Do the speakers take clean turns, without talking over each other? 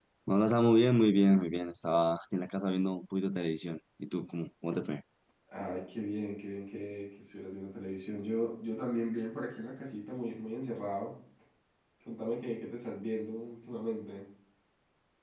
Yes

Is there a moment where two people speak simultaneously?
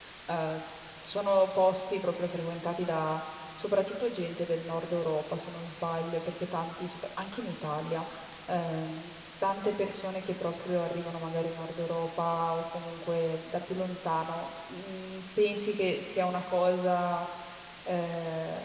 No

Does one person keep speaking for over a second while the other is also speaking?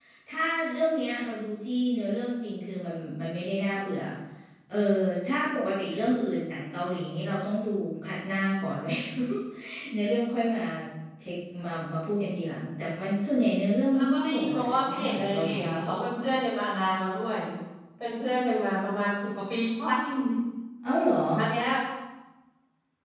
Yes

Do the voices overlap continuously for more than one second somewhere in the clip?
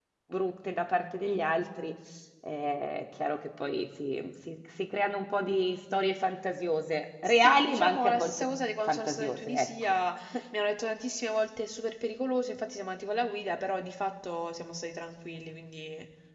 Yes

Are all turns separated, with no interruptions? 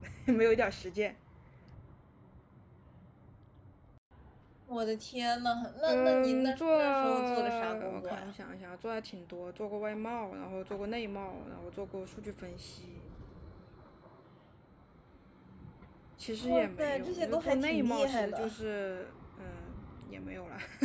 No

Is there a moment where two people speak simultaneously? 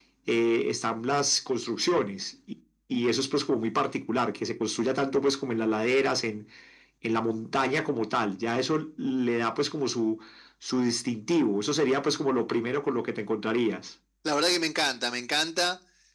No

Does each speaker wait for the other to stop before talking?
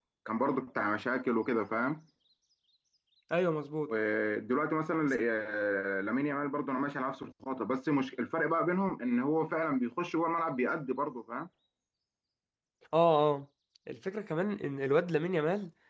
Yes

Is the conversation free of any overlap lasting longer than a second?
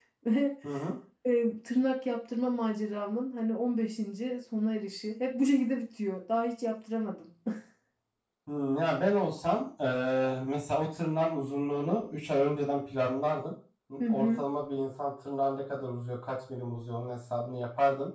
Yes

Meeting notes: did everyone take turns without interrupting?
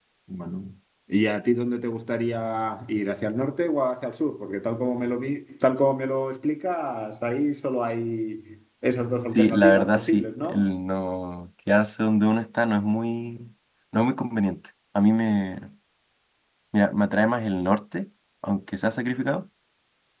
No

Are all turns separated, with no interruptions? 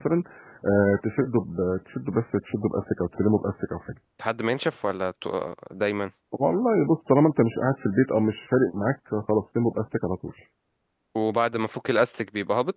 Yes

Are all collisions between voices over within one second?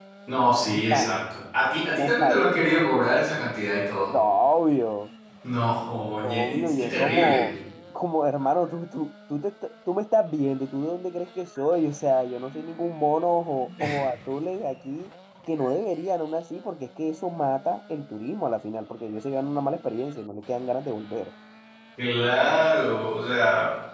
No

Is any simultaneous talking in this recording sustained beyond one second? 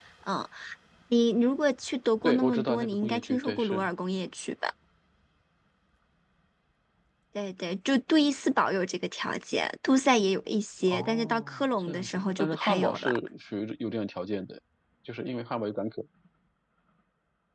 Yes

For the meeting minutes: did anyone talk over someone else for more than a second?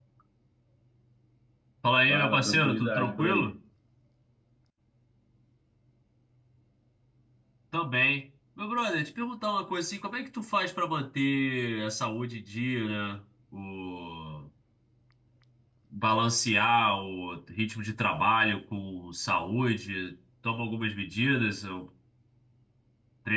Yes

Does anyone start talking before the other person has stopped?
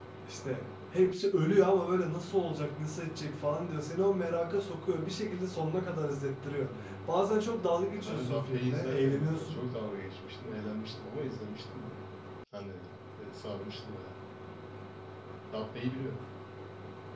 Yes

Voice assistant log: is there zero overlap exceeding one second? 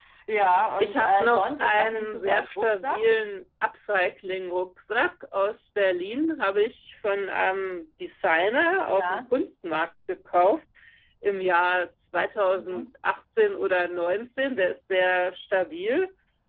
No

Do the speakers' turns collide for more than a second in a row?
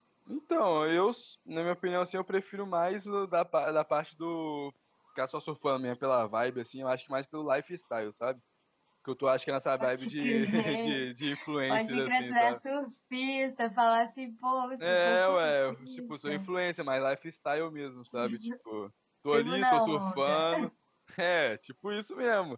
Yes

